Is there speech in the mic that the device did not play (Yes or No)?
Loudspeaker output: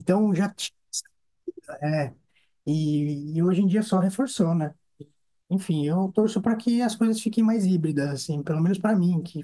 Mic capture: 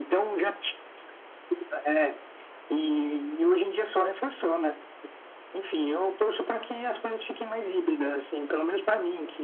No